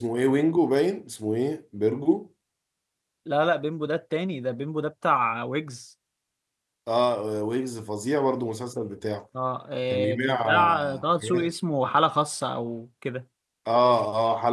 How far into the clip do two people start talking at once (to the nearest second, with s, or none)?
10 s